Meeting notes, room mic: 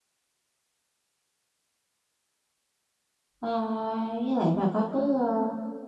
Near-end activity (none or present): present